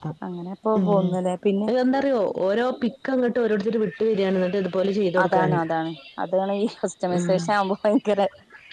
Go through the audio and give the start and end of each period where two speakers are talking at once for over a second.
none

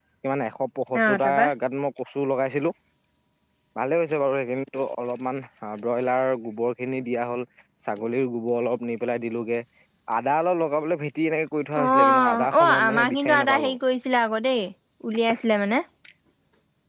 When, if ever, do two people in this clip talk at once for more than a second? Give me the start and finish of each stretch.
11.8-13.8

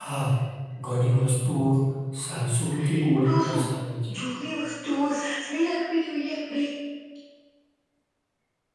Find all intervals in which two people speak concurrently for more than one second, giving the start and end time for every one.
none

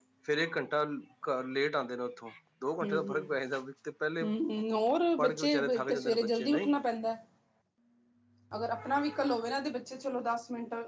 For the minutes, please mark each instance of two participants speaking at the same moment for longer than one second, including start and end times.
5.2-6.8

